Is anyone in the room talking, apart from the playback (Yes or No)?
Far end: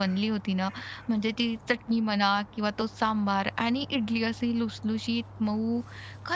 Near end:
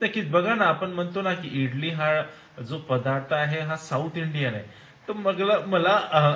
Yes